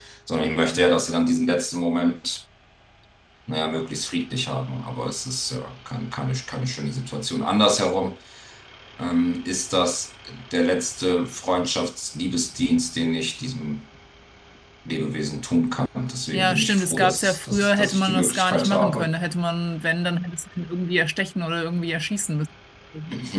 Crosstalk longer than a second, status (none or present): present